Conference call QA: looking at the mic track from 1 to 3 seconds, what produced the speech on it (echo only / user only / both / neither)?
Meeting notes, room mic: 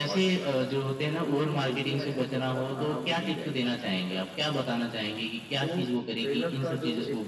echo only